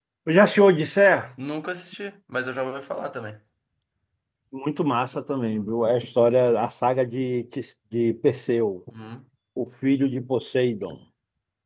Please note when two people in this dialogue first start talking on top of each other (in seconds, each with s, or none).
none